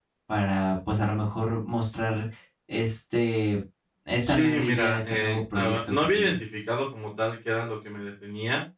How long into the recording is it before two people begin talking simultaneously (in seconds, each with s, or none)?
4.3 s